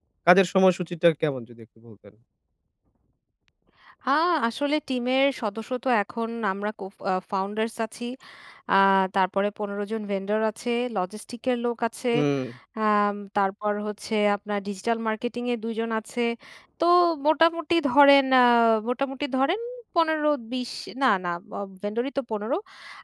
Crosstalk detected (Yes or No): No